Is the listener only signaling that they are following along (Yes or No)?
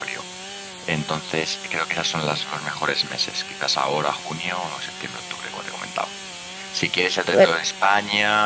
Yes